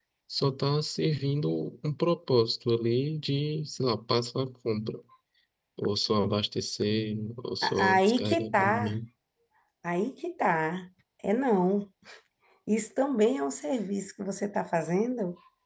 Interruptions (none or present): present